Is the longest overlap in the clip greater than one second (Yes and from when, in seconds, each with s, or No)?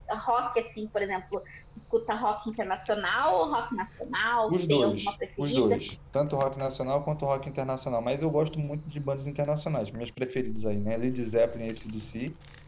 Yes, from 4.5 s